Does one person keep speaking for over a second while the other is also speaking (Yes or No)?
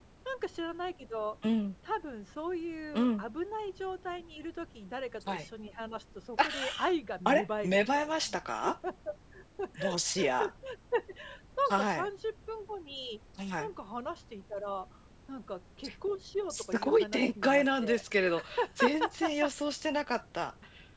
Yes